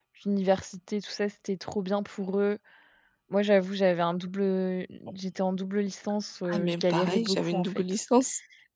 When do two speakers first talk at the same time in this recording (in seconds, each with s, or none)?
6.5 s